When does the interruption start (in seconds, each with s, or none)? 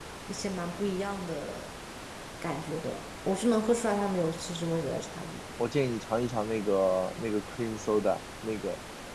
none